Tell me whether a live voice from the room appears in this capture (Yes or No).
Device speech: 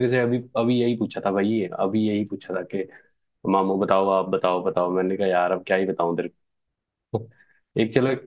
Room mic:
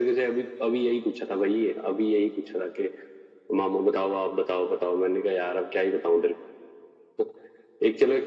No